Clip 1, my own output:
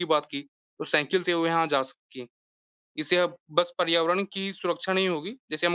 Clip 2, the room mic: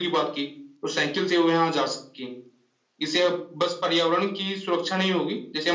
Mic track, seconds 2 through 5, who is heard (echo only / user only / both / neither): echo only